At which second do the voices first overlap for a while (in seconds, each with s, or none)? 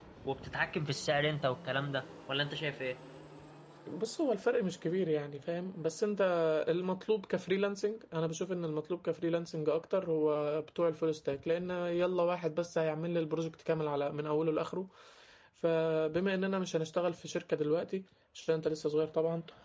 none